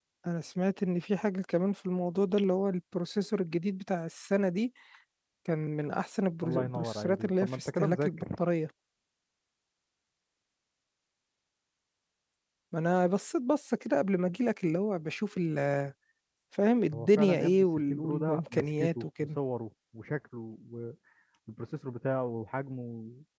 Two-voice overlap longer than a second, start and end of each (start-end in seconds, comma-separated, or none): 6.4-8.4, 16.9-19.4